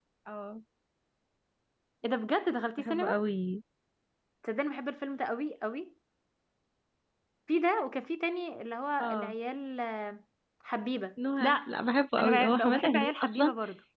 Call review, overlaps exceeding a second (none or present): present